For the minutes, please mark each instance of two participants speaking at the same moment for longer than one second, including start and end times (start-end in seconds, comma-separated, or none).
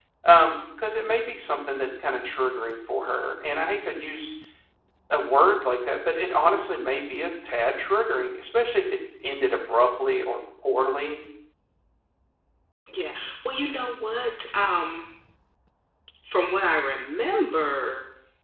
none